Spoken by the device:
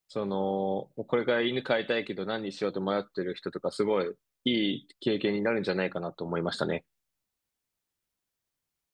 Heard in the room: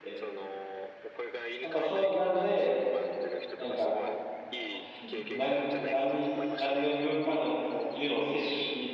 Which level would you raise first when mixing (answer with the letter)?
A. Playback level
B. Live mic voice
A